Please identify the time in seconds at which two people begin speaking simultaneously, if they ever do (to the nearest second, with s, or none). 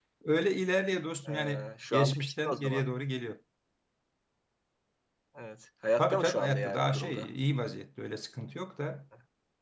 1 s